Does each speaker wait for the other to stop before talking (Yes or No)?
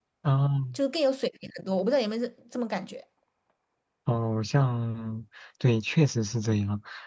Yes